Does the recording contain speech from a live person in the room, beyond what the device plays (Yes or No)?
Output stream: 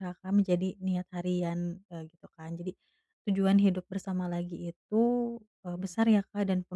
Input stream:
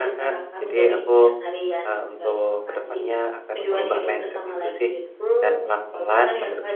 Yes